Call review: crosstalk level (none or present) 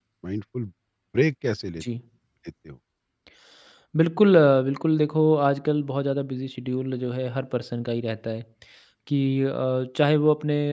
none